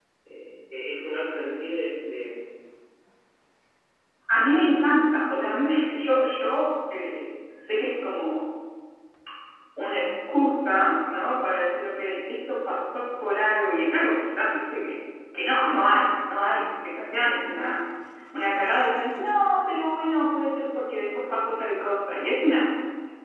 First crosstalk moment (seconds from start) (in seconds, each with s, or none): none